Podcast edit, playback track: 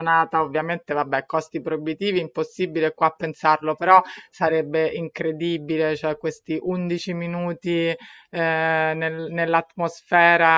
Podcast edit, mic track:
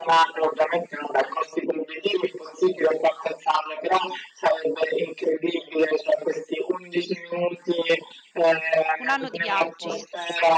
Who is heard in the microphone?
both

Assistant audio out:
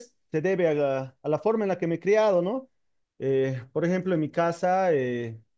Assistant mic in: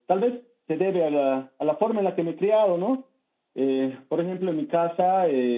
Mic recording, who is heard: echo only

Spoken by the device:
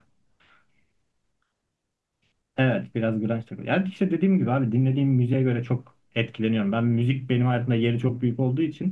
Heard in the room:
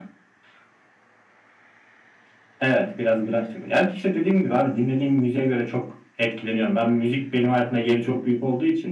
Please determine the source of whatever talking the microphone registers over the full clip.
echo only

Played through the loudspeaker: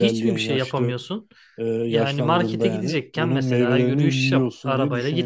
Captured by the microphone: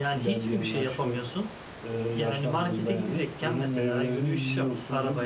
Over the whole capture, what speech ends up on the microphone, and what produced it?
echo only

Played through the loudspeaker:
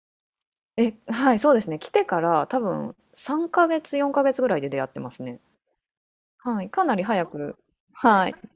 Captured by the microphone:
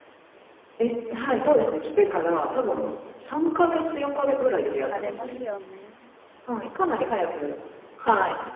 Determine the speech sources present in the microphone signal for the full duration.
both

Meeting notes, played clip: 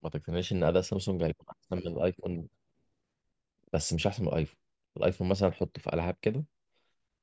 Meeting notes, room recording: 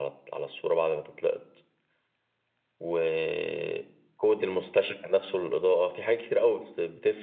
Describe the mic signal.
user only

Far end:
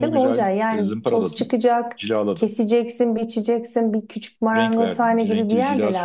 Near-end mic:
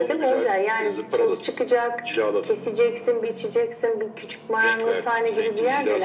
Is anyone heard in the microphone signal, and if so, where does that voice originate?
echo only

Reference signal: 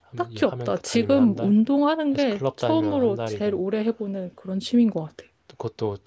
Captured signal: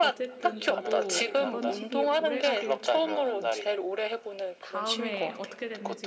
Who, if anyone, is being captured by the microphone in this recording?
both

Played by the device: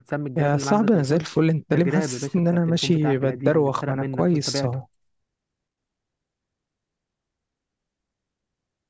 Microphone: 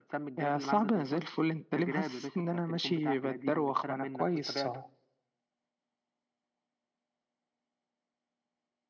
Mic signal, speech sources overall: echo only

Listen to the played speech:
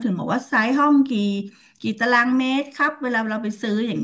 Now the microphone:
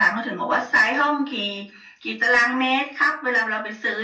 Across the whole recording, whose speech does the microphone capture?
echo only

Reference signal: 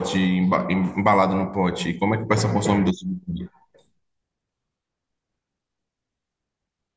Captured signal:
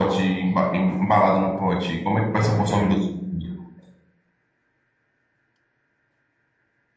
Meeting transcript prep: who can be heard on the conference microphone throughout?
echo only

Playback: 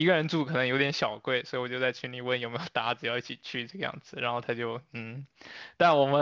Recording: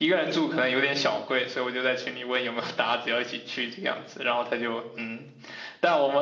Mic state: echo only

